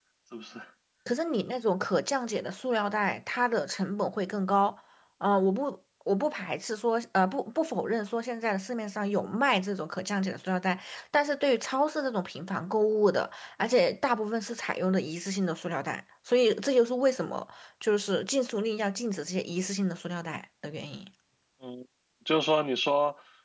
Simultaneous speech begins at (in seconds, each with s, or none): none